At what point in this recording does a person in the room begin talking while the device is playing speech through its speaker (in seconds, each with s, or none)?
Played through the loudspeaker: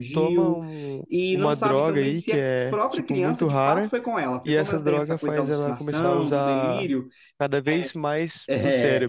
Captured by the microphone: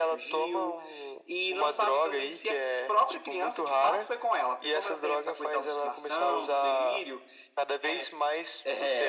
none